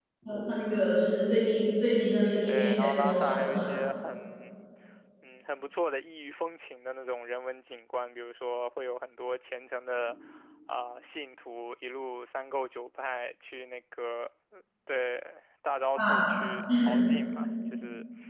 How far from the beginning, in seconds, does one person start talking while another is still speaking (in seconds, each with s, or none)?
2.5 s